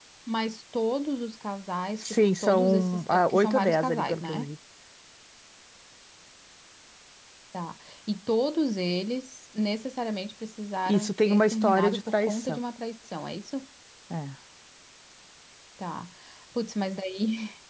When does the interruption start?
2.0 s

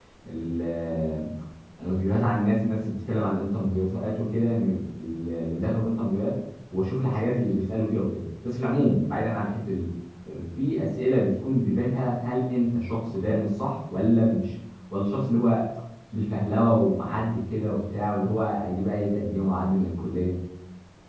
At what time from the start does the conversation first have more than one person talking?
none

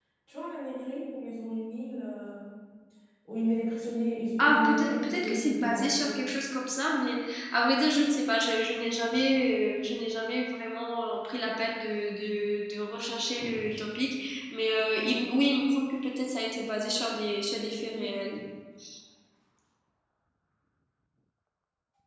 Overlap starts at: 4.4 s

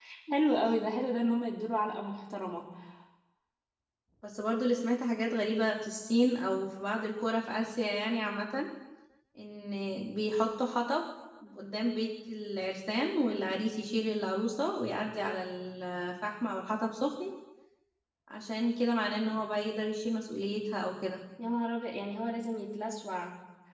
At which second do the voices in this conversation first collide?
none

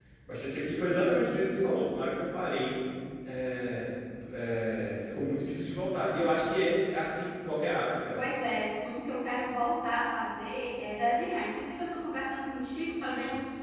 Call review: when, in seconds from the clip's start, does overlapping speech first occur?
none

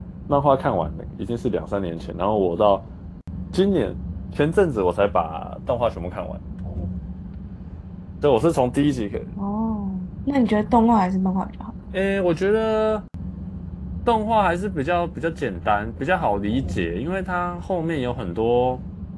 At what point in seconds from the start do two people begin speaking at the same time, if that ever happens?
none

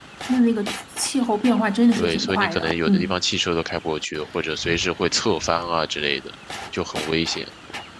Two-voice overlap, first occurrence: 1.9 s

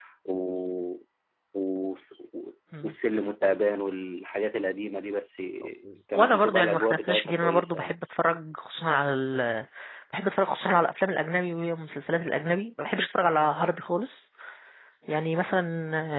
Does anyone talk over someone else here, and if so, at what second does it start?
6.1 s

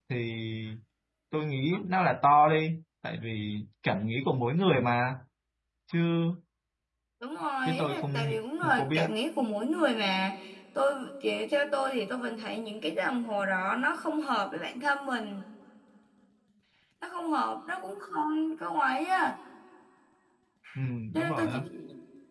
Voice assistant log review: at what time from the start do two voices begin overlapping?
7.6 s

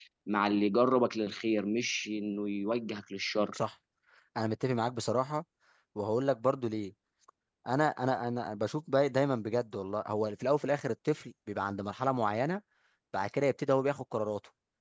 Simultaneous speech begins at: none

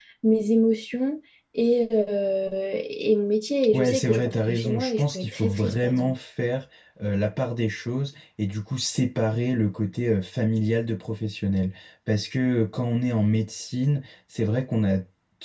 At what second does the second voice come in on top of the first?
3.6 s

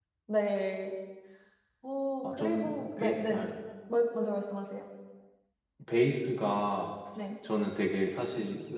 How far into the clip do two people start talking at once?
2.2 s

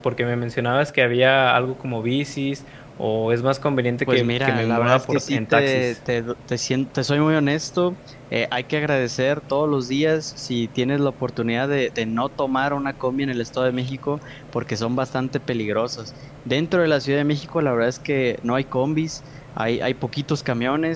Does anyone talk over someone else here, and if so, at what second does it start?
4.1 s

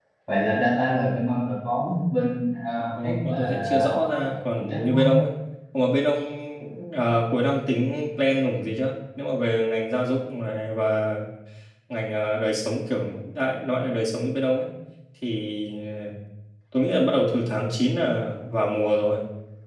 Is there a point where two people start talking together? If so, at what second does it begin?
3.0 s

